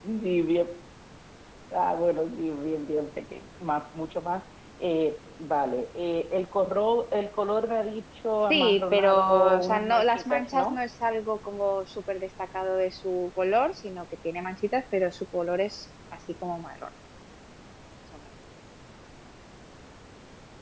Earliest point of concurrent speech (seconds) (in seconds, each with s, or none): 8.5 s